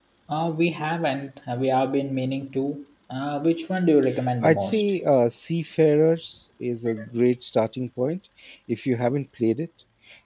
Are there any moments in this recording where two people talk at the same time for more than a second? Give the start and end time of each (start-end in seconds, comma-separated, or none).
none